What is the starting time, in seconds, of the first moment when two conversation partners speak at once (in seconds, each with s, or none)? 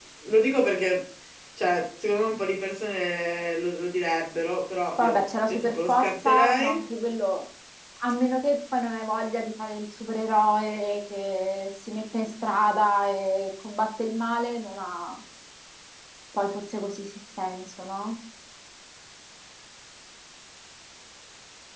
5.0 s